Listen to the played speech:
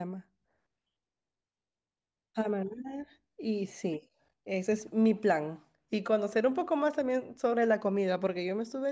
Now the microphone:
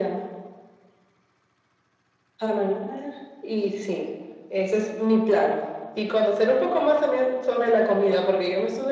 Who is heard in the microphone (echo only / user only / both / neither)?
echo only